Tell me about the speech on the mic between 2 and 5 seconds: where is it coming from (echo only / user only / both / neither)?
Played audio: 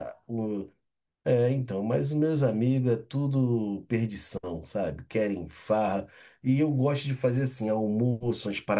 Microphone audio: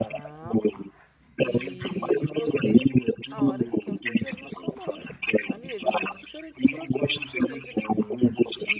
both